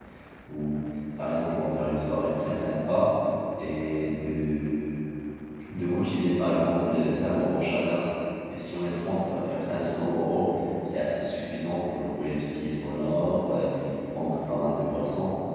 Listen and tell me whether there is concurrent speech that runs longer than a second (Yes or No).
No